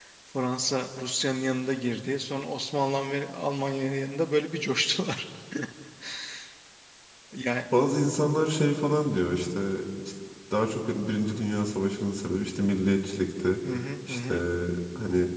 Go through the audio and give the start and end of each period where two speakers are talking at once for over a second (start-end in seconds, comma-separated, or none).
none